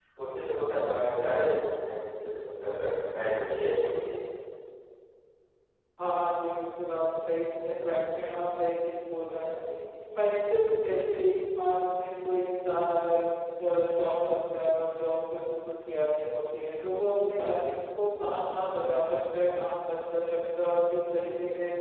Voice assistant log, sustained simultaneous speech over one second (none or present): none